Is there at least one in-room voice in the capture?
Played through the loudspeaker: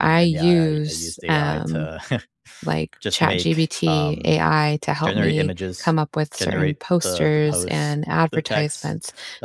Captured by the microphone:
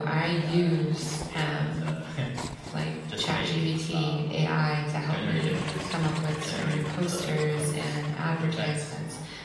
No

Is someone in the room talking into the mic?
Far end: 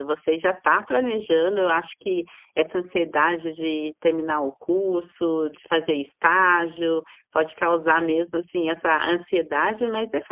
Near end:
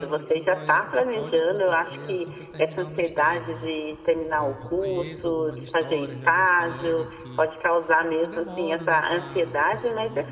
Yes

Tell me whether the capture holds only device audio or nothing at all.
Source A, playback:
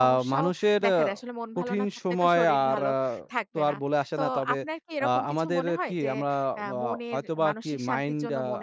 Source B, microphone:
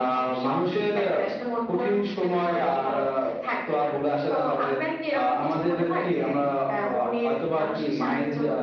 Yes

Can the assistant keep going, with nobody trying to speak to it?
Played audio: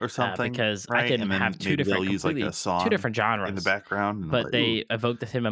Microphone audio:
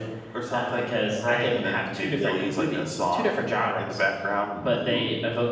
Yes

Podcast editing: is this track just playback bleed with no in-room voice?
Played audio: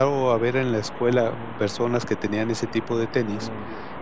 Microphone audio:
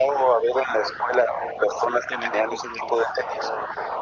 No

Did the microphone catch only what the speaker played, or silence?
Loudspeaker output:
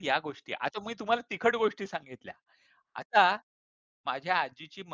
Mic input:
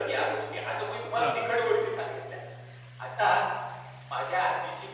No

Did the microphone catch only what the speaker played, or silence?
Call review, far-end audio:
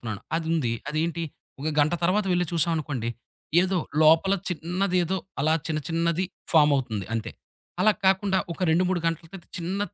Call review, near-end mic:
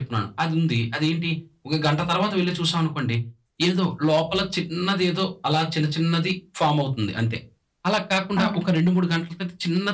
No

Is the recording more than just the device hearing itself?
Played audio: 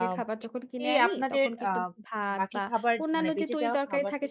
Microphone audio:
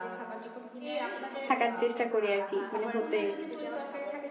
Yes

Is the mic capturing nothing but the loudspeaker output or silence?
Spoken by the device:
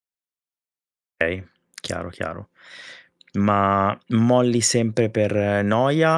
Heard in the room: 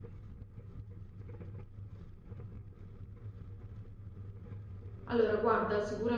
No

